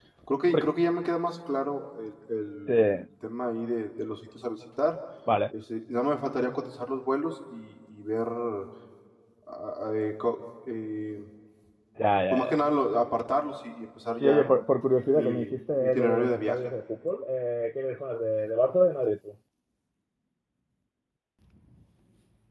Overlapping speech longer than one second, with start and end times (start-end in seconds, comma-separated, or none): 15.1-16.6